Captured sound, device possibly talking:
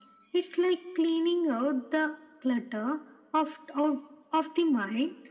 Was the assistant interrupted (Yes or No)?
No